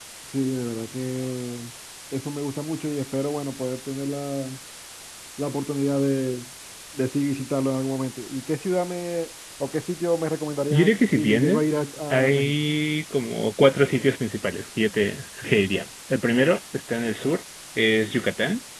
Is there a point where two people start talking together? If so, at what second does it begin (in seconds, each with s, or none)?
10.7 s